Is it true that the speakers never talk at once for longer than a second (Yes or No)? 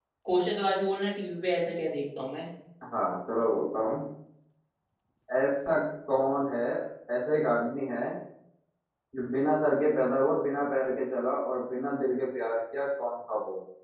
Yes